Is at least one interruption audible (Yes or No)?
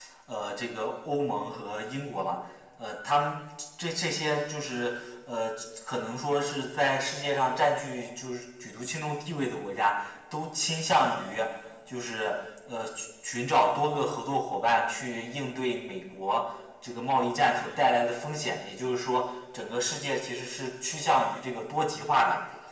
No